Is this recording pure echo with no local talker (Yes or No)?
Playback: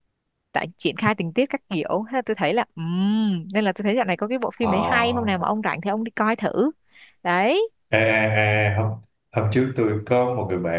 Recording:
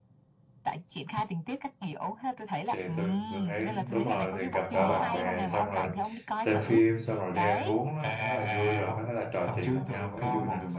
No